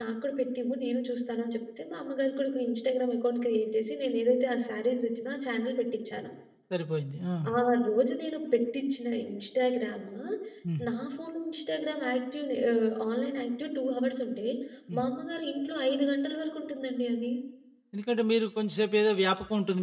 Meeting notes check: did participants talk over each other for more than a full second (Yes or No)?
No